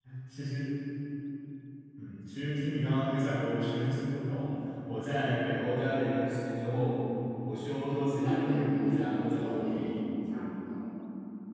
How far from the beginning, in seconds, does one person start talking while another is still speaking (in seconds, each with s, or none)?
8.2 s